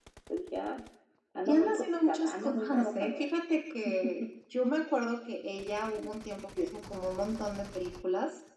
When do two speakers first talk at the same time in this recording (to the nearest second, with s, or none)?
1 s